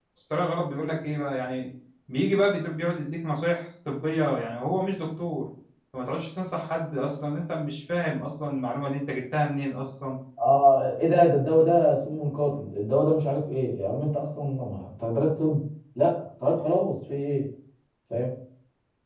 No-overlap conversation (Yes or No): Yes